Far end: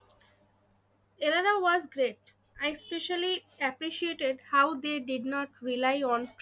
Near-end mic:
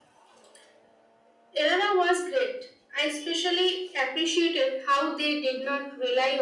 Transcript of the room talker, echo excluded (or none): none